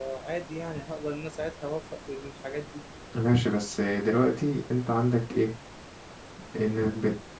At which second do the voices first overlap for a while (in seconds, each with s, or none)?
none